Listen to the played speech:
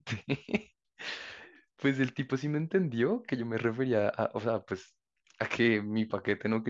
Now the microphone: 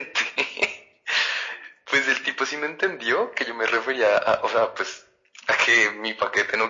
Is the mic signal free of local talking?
Yes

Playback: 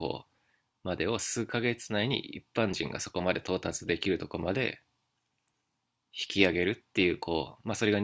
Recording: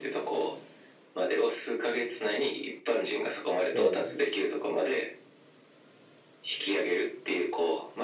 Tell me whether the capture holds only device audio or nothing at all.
No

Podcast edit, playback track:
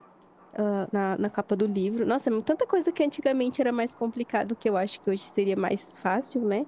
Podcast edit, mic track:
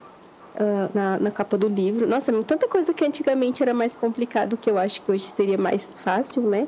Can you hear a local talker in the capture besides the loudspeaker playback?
No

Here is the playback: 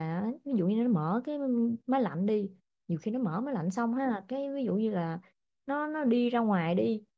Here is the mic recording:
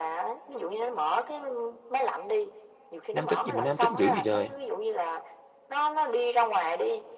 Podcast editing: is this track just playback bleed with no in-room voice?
No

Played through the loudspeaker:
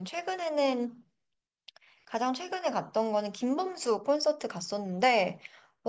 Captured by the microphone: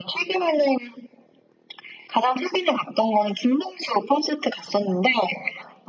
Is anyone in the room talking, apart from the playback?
No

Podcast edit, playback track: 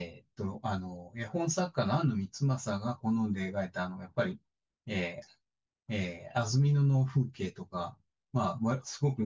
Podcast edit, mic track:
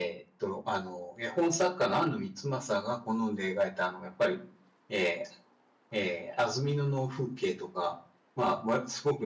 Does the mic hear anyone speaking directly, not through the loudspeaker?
No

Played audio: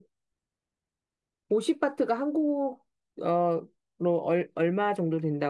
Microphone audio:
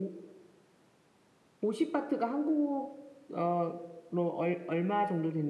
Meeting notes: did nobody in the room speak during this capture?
Yes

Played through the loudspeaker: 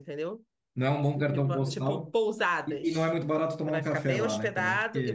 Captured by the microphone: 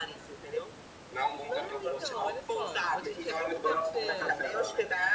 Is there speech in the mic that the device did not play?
Yes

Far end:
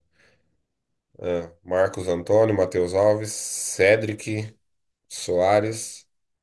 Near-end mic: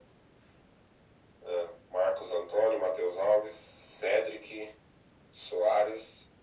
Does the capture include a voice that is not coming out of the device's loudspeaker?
No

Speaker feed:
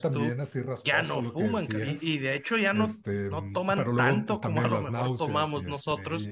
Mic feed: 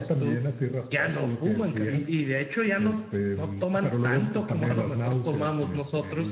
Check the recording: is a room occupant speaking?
No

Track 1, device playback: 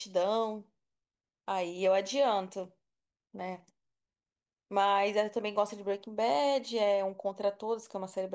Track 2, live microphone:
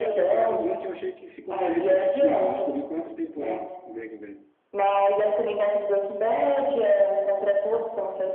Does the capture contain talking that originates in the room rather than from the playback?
Yes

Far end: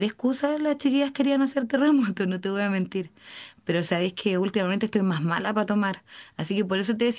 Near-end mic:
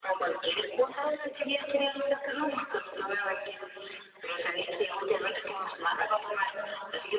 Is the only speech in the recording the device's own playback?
Yes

